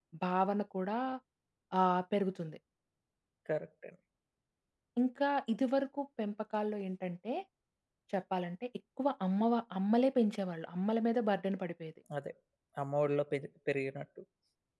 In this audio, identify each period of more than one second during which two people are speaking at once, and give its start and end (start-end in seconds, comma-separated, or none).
none